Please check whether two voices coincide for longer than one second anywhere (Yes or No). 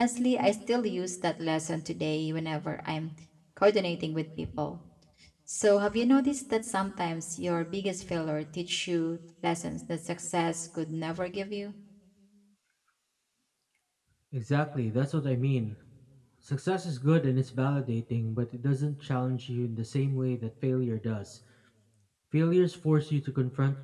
No